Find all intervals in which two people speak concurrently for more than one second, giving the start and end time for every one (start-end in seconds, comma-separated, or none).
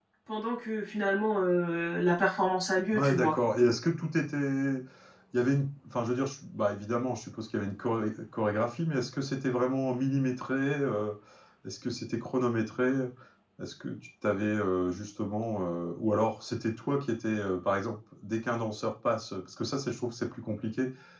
none